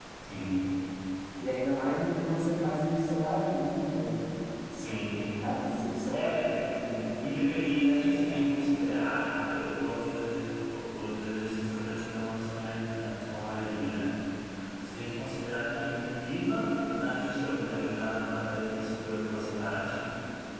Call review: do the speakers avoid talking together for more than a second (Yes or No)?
Yes